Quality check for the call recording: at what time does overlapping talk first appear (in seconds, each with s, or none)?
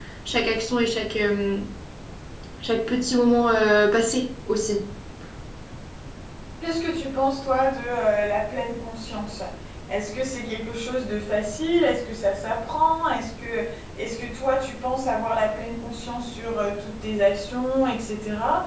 none